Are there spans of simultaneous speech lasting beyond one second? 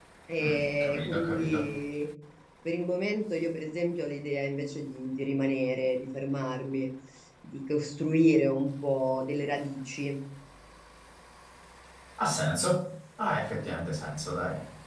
Yes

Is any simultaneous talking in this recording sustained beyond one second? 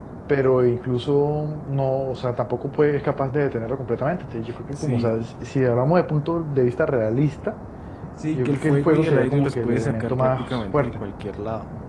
Yes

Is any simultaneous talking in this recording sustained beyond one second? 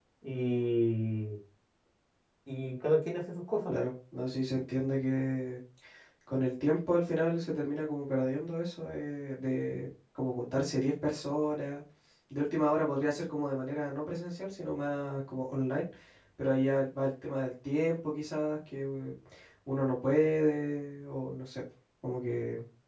No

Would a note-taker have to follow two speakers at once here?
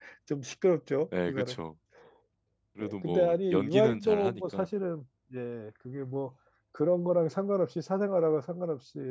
Yes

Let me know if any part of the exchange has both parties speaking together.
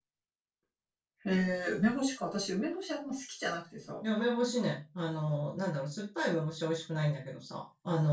No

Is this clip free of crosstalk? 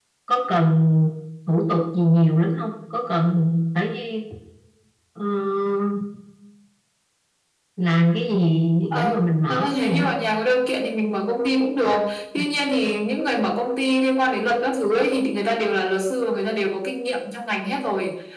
No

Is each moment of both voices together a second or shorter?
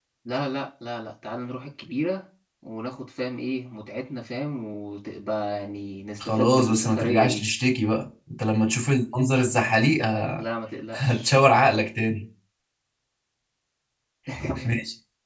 No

